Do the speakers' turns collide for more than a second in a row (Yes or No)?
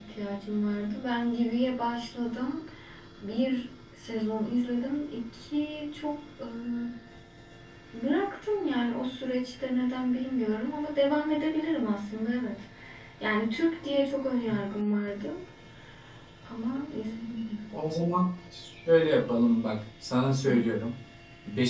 No